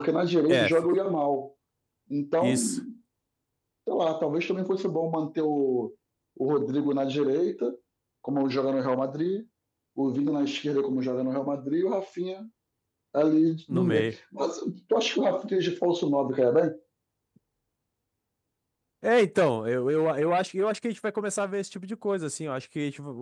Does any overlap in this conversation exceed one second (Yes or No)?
No